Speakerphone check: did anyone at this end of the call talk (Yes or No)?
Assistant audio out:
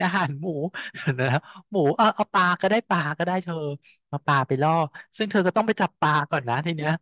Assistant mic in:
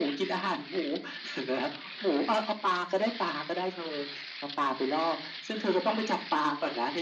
No